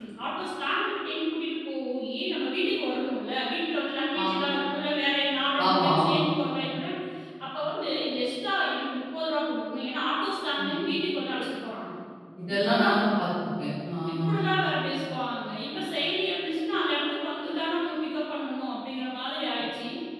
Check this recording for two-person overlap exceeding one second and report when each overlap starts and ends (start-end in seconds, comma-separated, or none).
none